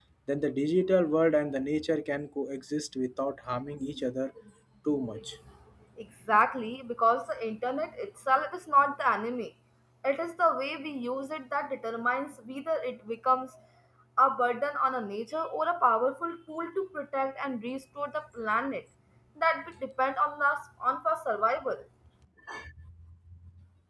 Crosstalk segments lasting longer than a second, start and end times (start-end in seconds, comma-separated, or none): none